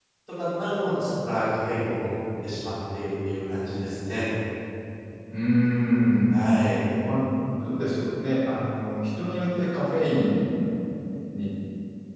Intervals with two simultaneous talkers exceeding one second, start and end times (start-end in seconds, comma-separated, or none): none